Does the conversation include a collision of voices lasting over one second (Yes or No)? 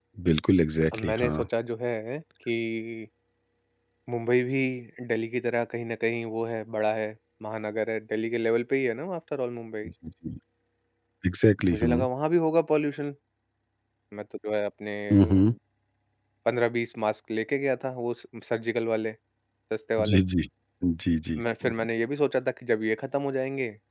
No